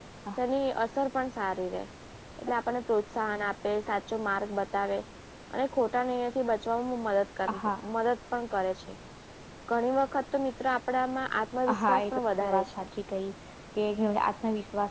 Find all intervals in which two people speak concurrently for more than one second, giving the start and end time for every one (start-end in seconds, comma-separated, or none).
11.7-12.9